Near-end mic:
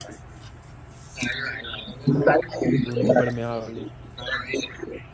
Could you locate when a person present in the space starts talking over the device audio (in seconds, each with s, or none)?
2.8 s